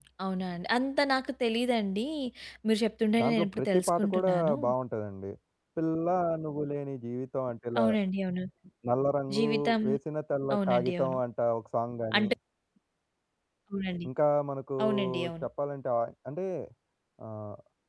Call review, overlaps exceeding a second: present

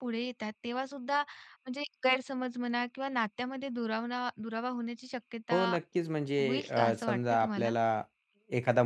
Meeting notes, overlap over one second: present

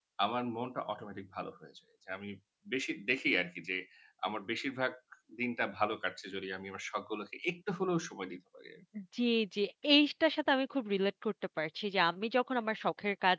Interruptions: none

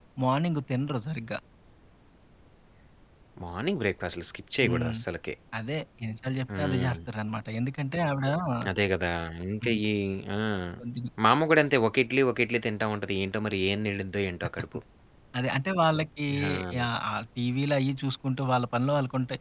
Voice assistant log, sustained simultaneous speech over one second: none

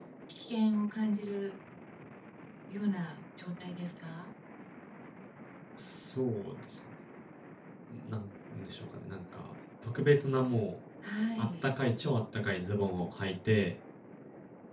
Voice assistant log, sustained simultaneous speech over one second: none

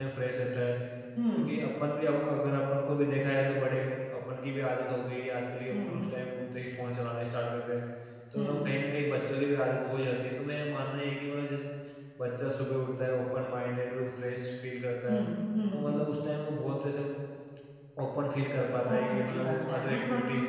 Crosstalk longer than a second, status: present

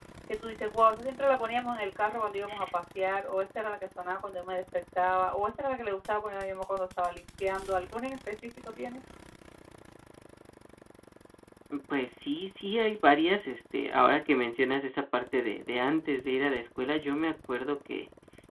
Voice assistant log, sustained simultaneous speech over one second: none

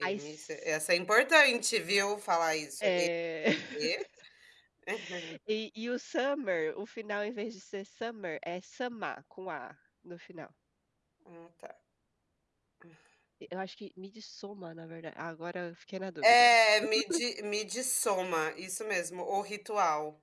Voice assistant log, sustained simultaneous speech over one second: none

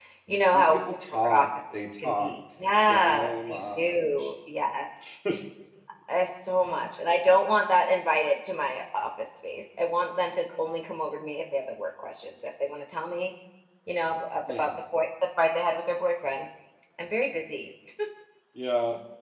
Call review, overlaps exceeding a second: present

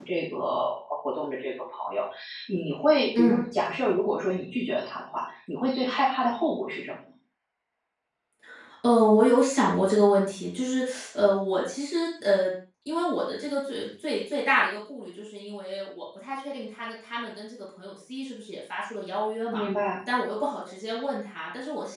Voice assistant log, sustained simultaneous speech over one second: none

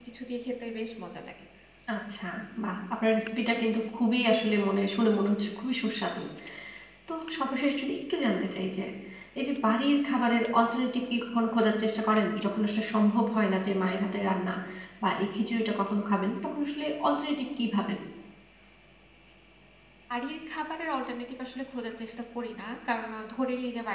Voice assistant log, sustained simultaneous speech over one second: none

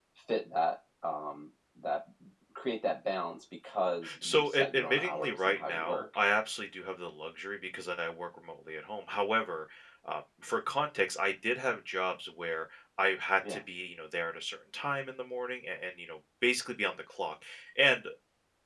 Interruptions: present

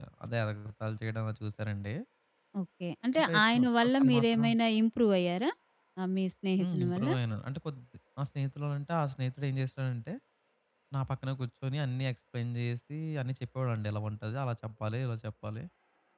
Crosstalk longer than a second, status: present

